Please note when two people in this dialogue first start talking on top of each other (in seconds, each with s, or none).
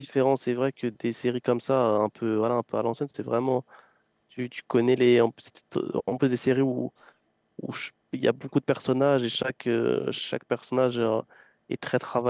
none